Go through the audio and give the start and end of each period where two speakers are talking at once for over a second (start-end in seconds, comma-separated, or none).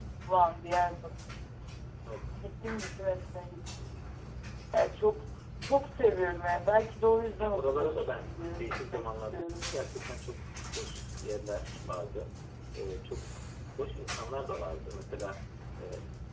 7.4-9.6